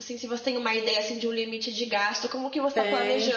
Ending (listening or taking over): taking over